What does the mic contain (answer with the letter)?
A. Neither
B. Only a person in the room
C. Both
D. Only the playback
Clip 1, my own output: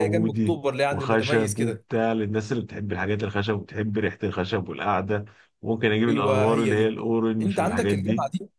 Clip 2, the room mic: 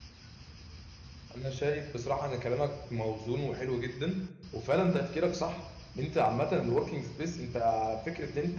B